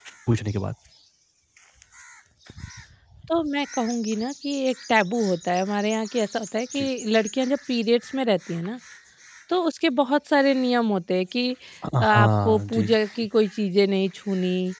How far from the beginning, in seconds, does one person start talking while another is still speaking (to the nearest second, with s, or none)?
12 s